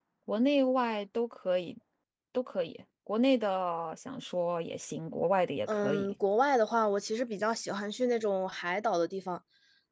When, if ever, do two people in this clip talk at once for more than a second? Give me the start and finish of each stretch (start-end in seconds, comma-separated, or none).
none